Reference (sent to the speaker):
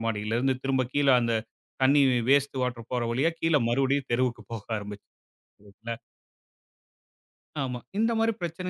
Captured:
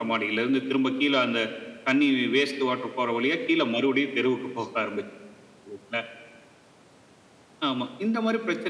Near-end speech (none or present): none